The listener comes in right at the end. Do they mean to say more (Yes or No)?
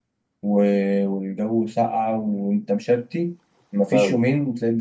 No